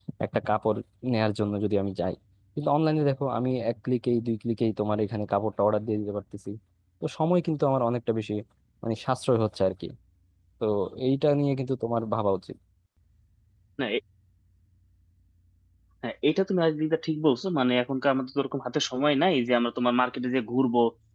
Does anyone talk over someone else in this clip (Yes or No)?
No